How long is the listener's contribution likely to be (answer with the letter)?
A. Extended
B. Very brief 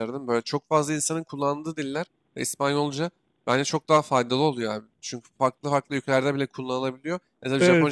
B